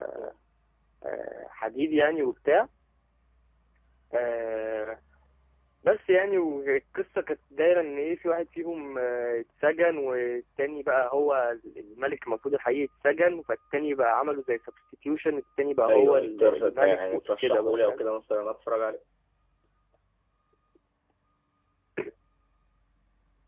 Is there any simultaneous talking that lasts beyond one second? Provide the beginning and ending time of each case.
15.9-18.0

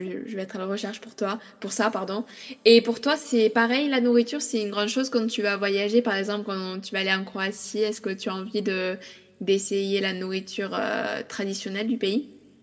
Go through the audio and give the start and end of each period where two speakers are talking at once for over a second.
none

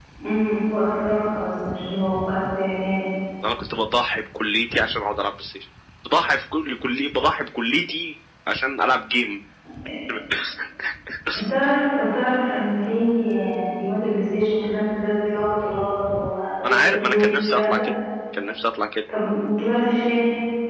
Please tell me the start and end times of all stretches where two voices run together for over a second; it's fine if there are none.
16.6-17.8

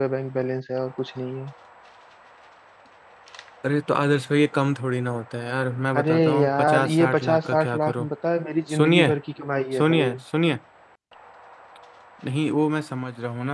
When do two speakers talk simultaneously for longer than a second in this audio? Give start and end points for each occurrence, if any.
6.0-8.1

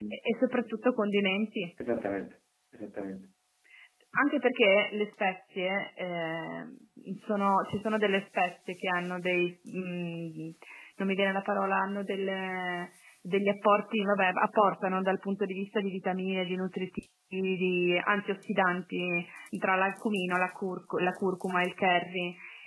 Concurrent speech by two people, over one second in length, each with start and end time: none

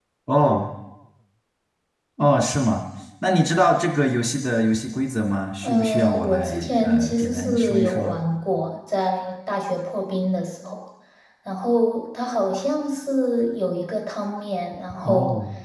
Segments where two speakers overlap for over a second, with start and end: 5.6-8.1

